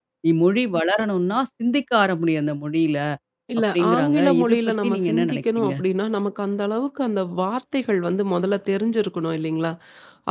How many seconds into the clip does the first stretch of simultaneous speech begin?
4 s

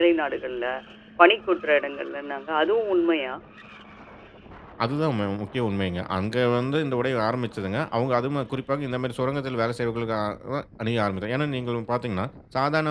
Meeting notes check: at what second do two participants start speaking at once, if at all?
none

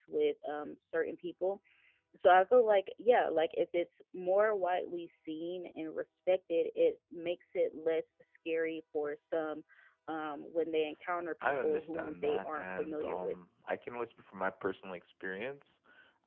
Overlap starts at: 11 s

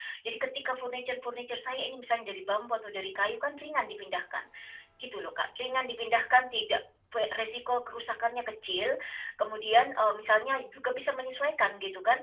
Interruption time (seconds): none

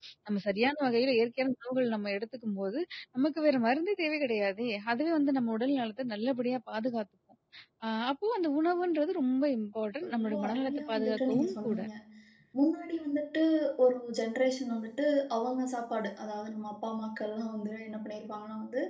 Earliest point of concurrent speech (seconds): 10 s

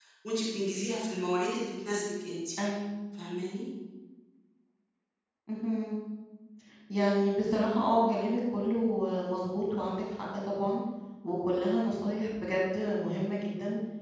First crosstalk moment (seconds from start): none

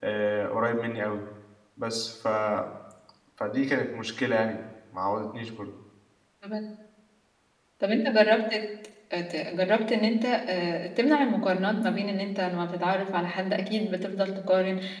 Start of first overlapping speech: none

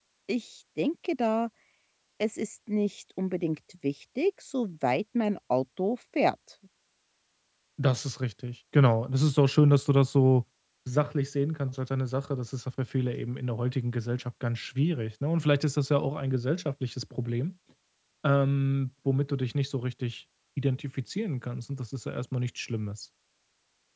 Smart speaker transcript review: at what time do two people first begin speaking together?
none

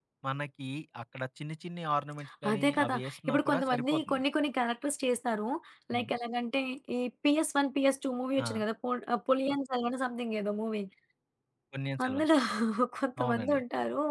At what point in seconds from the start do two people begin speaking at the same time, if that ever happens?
3 s

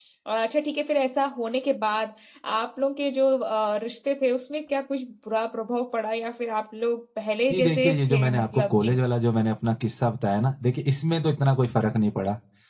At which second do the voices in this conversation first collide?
8 s

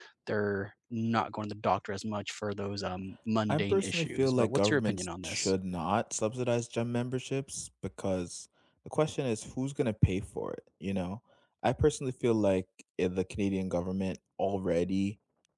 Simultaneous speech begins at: 3 s

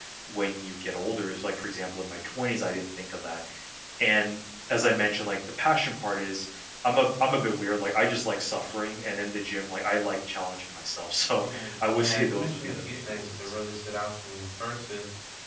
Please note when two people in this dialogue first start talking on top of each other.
11 s

